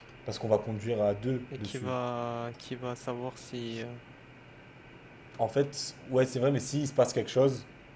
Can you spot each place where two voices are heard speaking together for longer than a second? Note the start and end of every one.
none

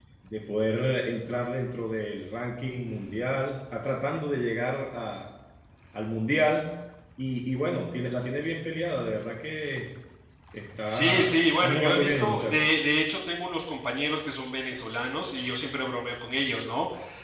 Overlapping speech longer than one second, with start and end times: 10.8-12.6

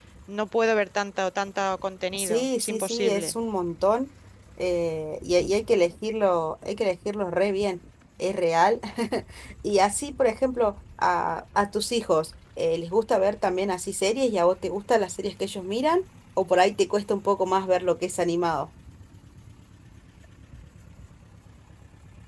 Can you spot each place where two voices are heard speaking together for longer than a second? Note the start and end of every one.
2.1-3.3

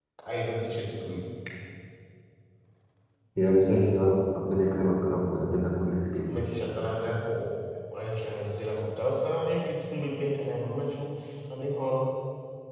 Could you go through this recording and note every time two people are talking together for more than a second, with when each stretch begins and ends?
none

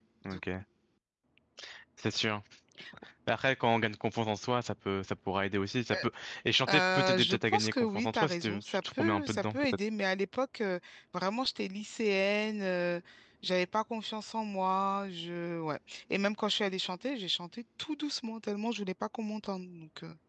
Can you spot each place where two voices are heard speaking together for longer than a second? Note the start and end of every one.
6.7-9.7

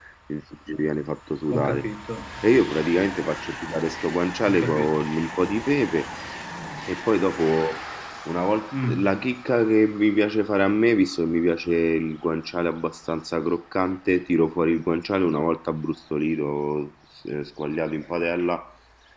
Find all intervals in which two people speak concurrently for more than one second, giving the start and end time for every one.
none

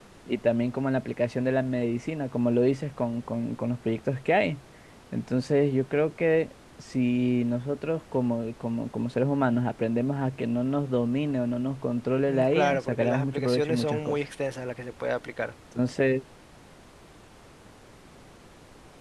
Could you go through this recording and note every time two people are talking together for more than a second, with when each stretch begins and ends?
12.3-14.2

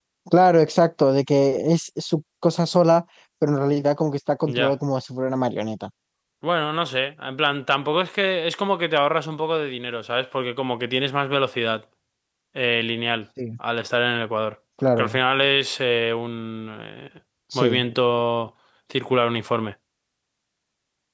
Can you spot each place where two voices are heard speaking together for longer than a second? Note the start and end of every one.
none

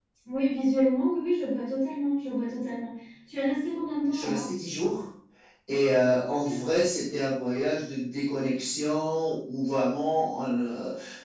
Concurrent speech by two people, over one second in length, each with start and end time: none

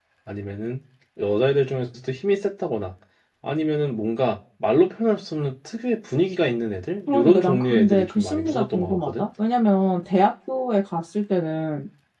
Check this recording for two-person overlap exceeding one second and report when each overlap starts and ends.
7.1-9.2

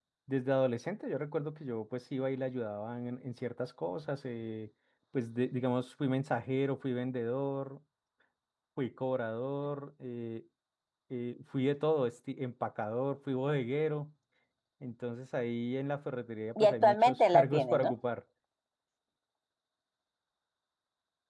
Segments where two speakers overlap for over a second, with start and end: 16.6-17.9

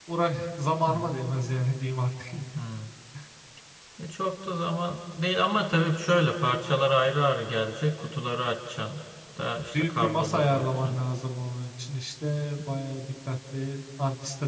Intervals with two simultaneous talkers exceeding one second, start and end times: 9.7-11.0

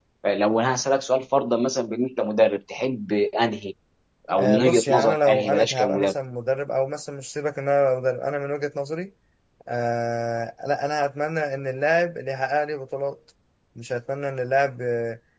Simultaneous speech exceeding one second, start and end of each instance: 4.4-6.1

